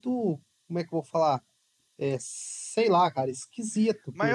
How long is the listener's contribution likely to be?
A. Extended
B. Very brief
A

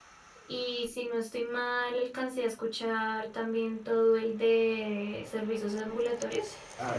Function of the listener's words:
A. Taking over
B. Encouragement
A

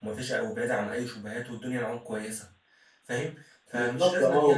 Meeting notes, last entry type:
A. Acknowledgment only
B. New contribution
B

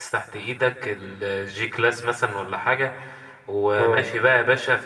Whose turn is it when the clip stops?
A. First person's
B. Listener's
A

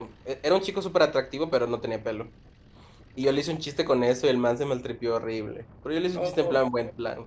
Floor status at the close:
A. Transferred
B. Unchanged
B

